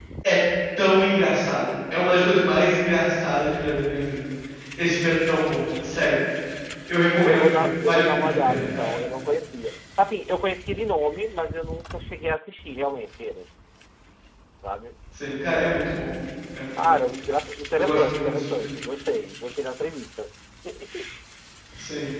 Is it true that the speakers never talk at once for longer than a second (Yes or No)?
No